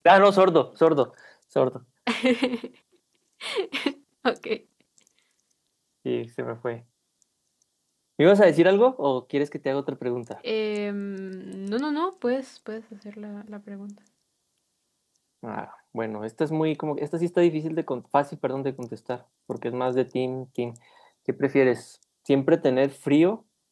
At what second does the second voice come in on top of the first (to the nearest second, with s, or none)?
none